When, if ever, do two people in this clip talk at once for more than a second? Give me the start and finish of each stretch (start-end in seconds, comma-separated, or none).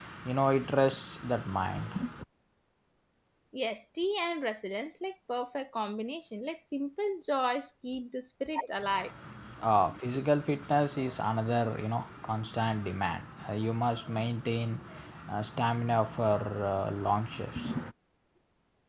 none